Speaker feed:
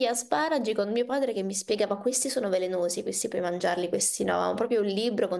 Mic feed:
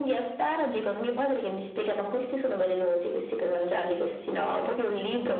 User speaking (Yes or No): Yes